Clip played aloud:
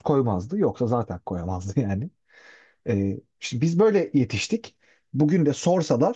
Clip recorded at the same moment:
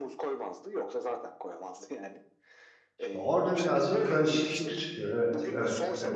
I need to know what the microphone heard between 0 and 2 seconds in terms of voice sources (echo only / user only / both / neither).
echo only